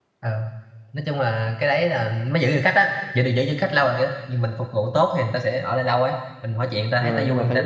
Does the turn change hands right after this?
Yes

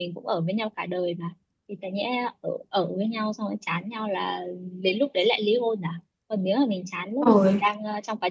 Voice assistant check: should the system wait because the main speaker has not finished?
Yes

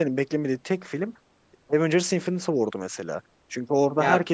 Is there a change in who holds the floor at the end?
No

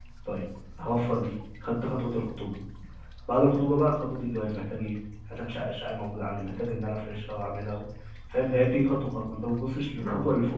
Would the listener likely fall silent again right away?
Yes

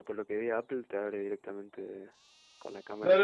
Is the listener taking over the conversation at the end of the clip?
Yes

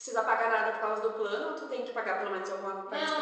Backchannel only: No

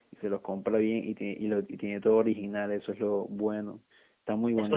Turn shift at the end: Yes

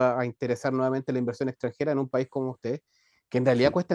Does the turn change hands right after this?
No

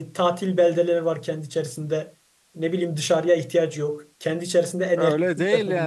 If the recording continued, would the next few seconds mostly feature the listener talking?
Yes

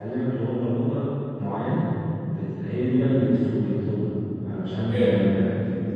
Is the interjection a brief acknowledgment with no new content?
Yes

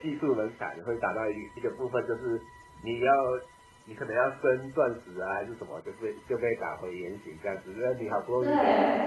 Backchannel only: Yes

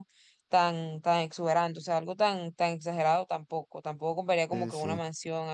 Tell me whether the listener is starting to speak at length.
No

